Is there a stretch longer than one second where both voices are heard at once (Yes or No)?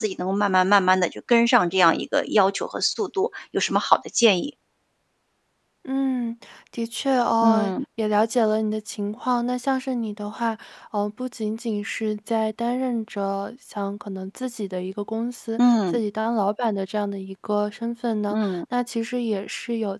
No